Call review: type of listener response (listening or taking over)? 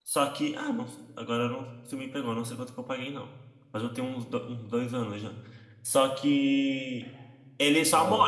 listening